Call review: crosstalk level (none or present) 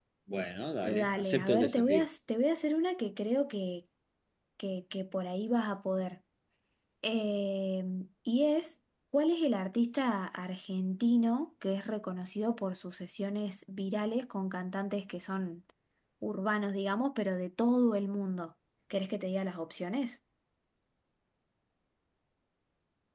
present